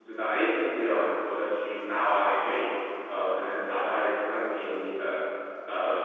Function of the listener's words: taking over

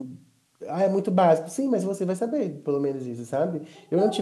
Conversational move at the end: listening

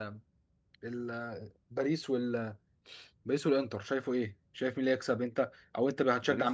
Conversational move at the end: taking over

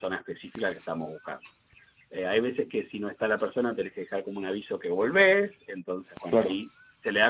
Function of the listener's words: listening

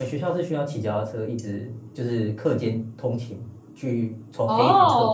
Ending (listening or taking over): taking over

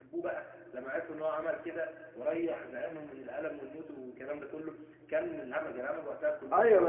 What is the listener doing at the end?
taking over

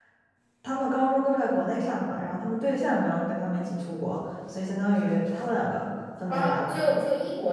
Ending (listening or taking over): taking over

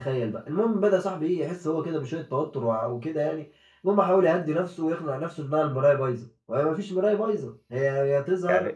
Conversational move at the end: taking over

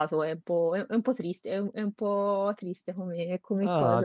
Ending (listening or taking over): taking over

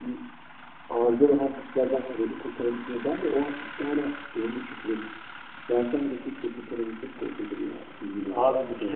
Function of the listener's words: taking over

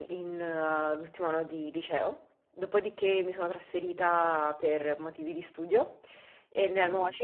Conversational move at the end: listening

